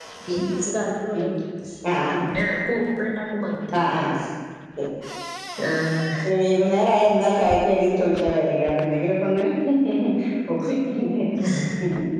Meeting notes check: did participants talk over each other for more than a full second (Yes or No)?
No